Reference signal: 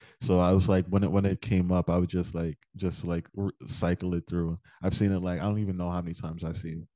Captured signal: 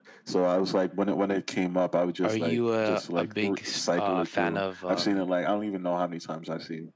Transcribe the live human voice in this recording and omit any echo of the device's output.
Are you a a big s- uh fan of um

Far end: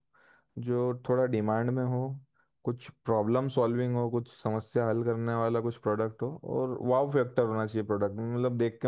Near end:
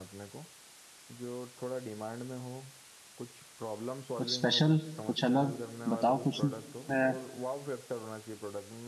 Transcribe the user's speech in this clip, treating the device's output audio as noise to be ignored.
कुछ स्पेशल कुछ अलग बताओ कुछ नया

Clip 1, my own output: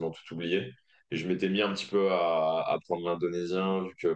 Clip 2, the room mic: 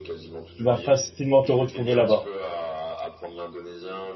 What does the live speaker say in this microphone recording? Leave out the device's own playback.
tu vas facilement te retrouver là-bas.

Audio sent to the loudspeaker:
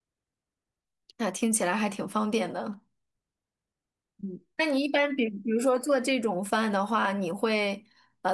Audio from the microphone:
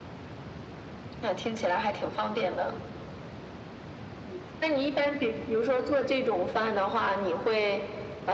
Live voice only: none

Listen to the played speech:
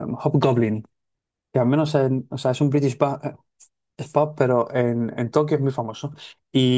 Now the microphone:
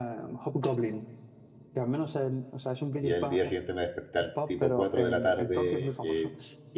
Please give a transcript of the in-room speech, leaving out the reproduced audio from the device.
y al día siguiente me desperté al tipo 4 de la tarde, eh,

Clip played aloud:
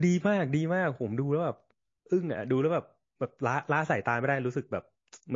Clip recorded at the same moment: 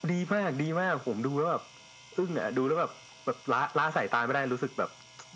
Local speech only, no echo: none

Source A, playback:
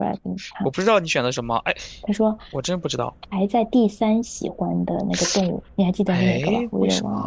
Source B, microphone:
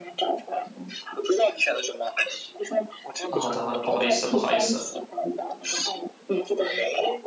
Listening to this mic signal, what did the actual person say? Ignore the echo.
啊好的好的，不好意思不好意思，

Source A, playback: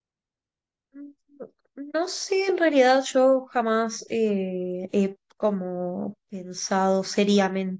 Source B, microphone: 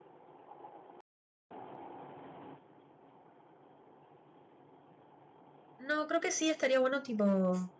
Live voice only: No, creo que sí, estaría bueno tipo

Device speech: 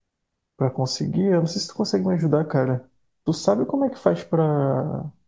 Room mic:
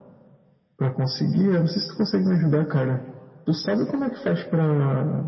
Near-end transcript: none

